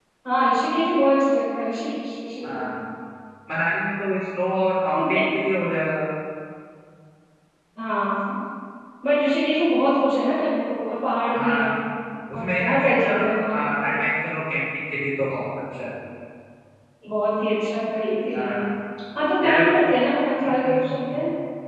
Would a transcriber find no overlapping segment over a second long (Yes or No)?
No